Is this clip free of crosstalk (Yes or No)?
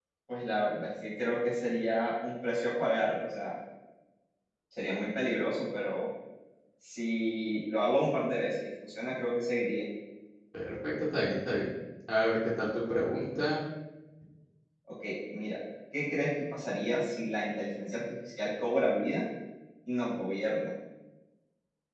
Yes